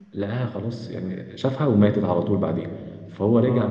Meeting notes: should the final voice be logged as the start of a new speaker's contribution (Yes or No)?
No